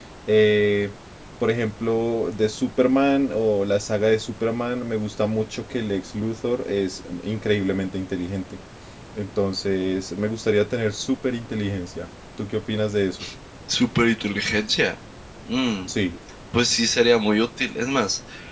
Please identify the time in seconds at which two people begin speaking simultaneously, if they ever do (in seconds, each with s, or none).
none